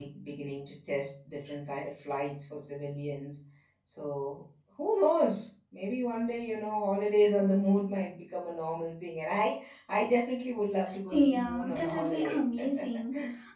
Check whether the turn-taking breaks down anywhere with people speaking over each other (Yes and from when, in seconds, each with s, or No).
Yes, from 11.1 s